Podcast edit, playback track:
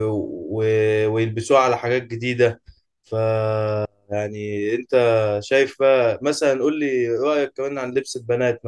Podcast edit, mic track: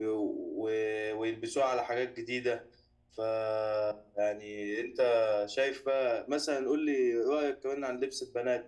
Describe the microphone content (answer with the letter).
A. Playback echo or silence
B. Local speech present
A